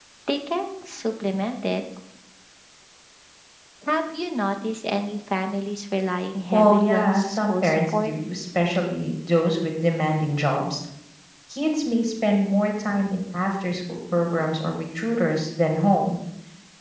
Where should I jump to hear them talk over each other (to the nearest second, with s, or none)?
7 s